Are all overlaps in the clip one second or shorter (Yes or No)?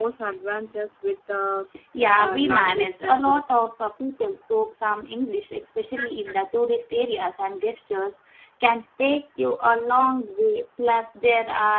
No